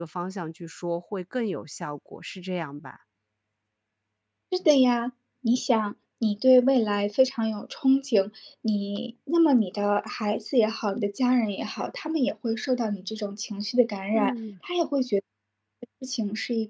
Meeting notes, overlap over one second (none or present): none